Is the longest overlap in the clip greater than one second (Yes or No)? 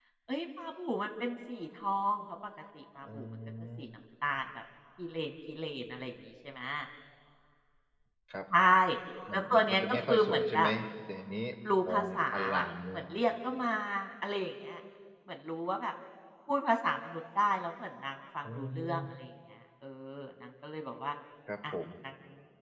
Yes